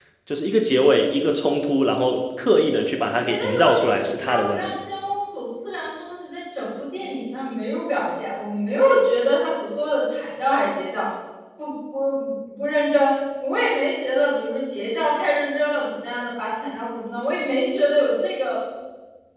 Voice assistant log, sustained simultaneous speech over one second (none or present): present